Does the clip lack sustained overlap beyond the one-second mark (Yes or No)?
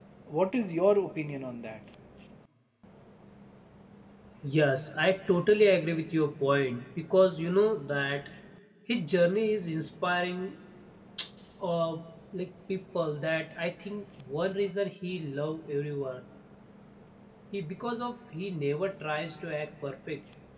Yes